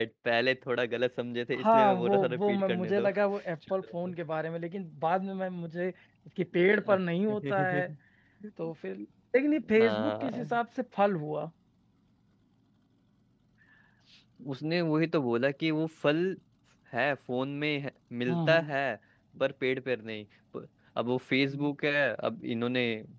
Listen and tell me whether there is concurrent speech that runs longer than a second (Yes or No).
Yes